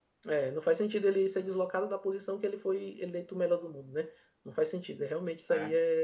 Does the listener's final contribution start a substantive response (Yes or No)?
No